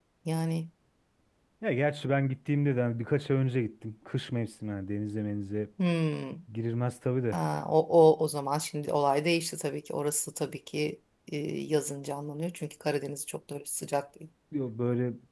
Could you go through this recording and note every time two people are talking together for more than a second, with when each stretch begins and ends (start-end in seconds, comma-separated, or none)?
none